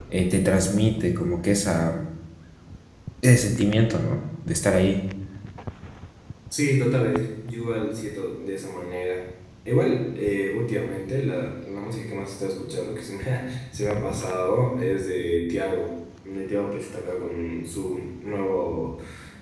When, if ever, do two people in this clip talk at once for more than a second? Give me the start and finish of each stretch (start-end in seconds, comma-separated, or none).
none